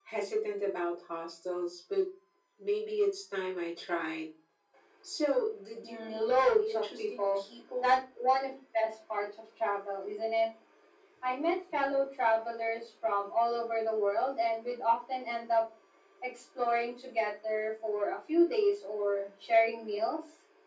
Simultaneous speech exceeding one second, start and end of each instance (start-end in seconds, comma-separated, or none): 5.8-7.4